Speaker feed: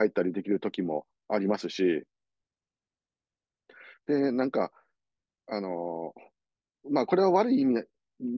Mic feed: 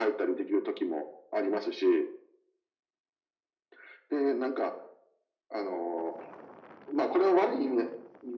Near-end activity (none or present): none